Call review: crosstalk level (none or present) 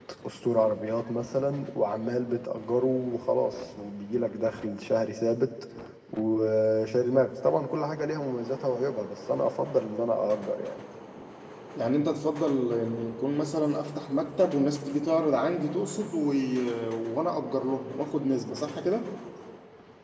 none